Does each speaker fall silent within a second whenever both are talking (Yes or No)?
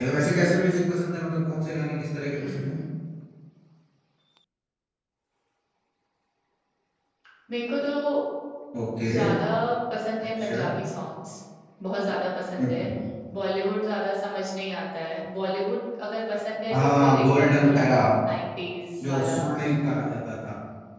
No